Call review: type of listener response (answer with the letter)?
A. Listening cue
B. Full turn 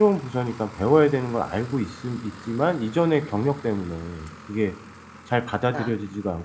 A